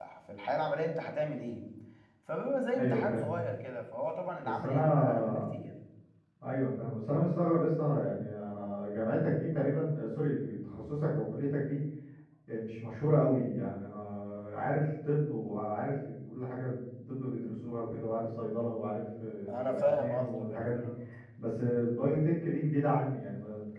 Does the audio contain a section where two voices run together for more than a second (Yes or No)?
Yes